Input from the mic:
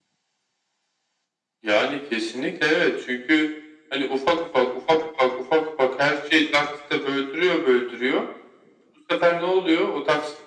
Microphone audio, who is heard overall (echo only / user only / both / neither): echo only